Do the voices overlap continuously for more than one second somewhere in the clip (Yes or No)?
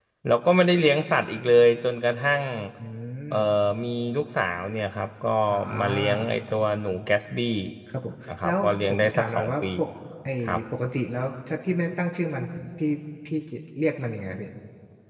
Yes